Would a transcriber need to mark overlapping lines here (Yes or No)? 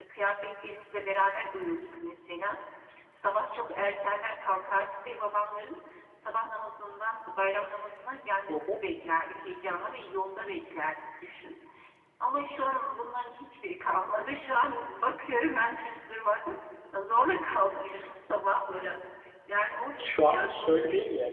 Yes